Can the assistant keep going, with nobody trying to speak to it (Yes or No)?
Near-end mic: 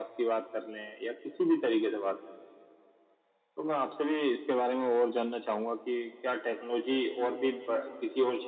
Yes